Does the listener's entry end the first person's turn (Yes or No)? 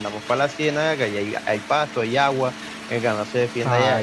Yes